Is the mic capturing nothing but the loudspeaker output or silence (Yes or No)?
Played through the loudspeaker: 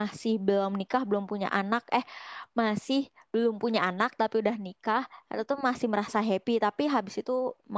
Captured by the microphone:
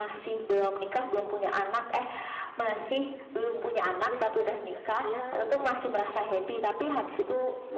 No